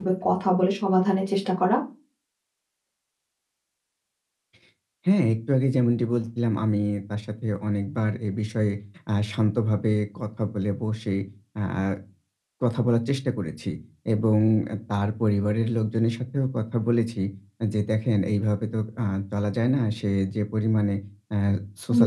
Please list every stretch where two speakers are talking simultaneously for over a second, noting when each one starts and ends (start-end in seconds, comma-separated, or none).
none